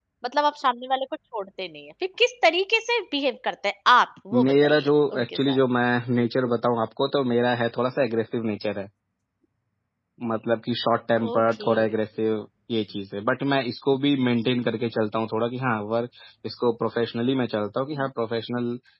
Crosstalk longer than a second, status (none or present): present